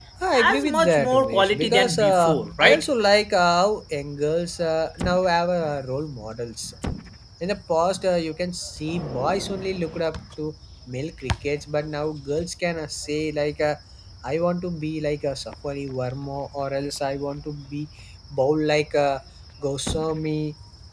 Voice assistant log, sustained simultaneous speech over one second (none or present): present